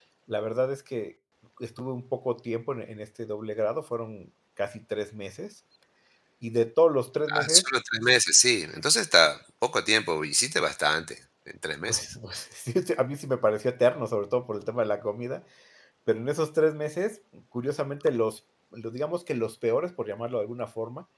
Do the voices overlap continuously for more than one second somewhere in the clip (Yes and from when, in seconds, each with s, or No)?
No